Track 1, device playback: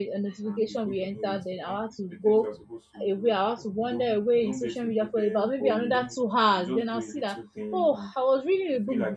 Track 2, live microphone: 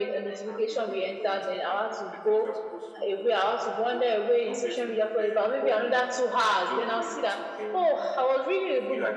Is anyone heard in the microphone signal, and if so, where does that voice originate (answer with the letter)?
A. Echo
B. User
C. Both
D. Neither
A